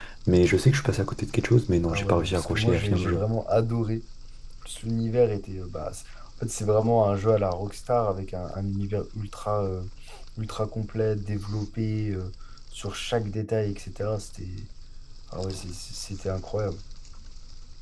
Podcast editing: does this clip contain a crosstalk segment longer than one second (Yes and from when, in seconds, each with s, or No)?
Yes, from 1.9 s